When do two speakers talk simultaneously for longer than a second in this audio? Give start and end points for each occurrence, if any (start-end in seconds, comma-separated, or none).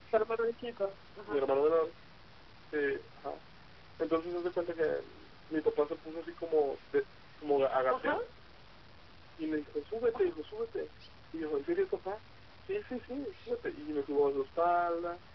none